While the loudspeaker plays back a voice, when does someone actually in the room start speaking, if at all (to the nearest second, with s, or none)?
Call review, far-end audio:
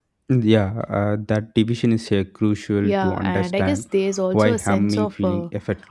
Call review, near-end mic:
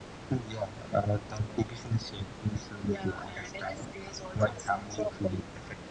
none